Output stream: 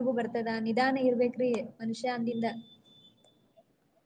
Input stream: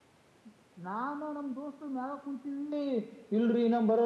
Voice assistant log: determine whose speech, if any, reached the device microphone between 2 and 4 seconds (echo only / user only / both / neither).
user only